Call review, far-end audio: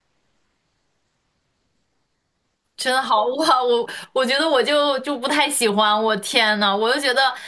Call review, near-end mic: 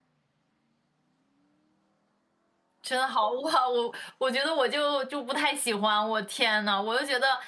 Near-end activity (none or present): none